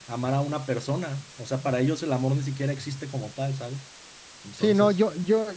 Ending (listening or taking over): taking over